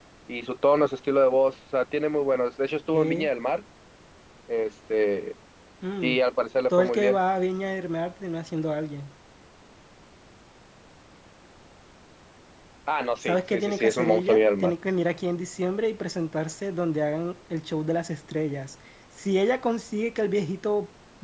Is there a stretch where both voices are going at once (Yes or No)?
Yes